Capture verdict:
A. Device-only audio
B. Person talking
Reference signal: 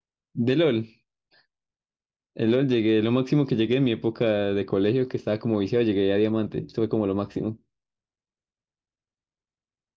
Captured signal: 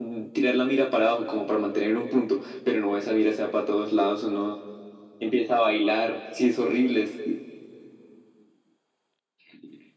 B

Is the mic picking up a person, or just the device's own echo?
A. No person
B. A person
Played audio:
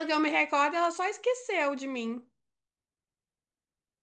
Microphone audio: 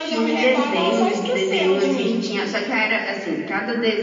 B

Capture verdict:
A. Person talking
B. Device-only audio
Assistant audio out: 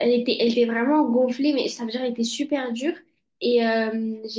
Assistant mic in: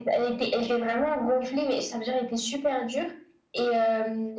B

